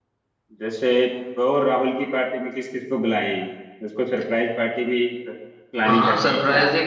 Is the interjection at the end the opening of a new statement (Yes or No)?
Yes